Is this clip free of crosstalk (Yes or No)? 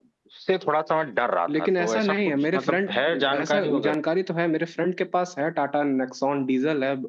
No